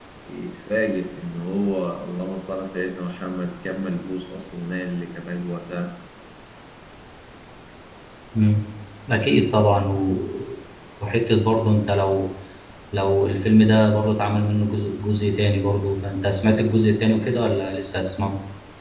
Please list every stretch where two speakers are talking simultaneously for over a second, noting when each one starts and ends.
none

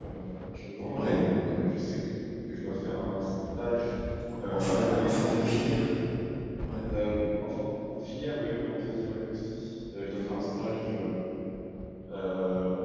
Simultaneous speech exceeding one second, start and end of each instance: 4.5-5.8

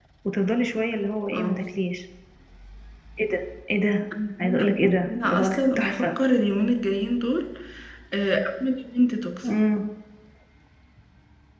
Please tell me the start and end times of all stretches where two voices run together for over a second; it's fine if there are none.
4.4-6.1

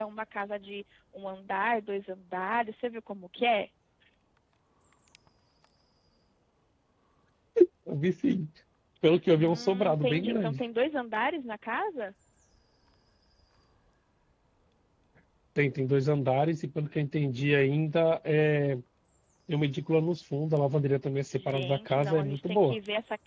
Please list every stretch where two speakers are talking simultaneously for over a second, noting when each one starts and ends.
9.4-10.6, 21.3-22.8

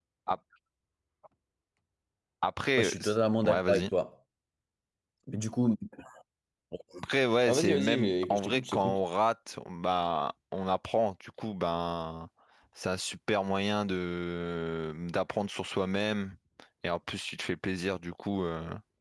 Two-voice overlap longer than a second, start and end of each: 7.5-9.0

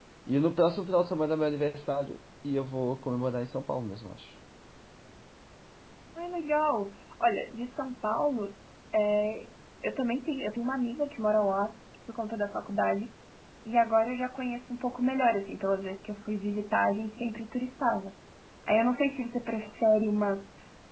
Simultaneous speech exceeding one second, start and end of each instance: none

